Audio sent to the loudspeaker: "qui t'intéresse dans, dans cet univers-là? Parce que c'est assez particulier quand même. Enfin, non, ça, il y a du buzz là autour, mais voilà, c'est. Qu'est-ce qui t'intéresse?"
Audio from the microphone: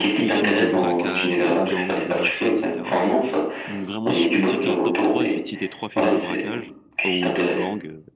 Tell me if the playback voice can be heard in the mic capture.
Yes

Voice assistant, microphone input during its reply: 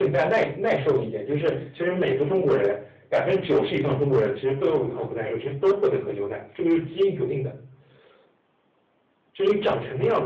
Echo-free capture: No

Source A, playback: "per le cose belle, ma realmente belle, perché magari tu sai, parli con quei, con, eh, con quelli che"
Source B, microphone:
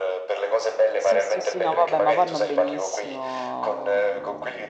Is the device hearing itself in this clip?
Yes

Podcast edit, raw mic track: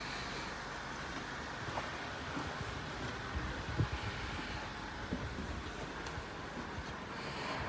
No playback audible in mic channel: Yes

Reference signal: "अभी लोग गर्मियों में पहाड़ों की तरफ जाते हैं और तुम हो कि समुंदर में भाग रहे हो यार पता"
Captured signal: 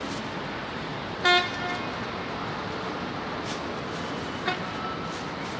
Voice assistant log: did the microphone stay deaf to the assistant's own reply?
Yes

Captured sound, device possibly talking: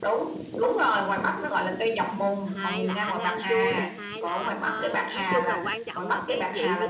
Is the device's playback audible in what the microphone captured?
Yes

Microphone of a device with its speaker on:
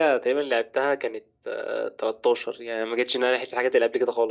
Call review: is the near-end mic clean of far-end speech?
No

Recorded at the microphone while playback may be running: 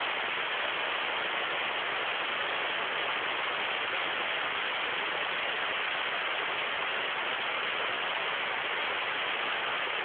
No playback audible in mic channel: Yes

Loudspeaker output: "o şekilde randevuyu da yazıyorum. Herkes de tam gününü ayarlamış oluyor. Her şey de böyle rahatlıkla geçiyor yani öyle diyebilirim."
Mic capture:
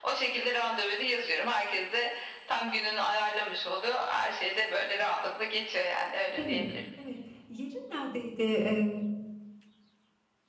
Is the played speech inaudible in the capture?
No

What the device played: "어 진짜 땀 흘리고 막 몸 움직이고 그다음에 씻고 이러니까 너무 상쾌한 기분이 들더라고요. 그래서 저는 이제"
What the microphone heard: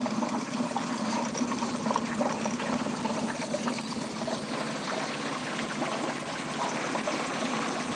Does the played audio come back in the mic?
No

